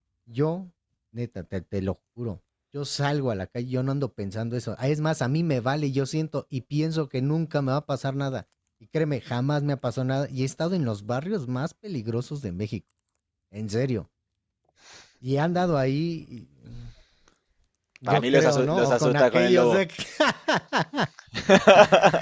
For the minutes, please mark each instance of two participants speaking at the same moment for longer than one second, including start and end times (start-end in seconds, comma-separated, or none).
18.1-19.8